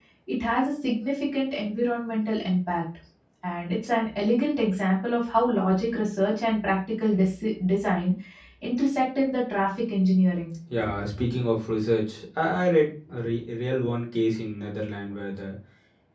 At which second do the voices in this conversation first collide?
none

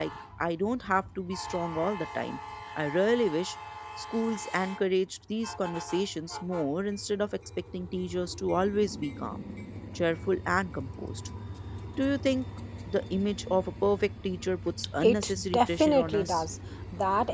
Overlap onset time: 15 s

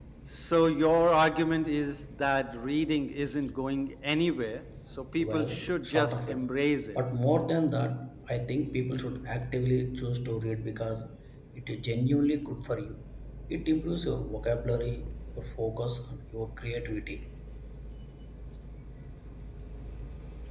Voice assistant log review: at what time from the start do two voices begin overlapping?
5 s

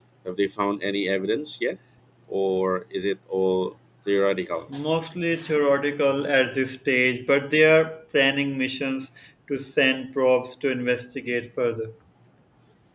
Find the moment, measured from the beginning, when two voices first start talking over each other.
none

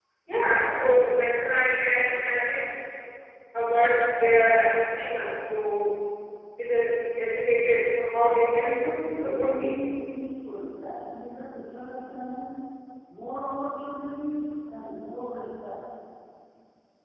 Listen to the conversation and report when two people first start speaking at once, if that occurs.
9 s

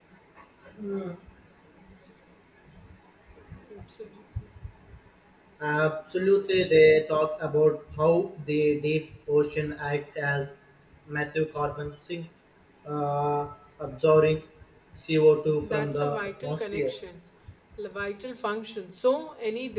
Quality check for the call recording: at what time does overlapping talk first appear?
16 s

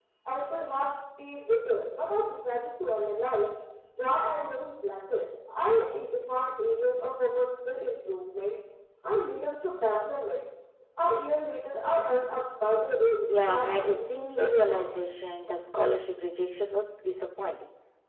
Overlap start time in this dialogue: 13 s

